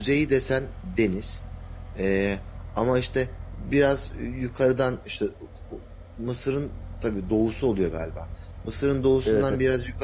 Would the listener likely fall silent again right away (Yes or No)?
Yes